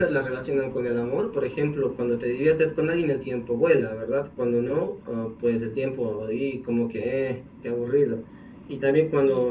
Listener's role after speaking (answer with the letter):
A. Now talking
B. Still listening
B